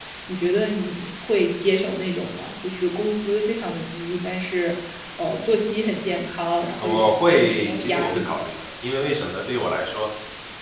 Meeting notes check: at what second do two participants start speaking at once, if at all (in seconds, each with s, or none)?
6.8 s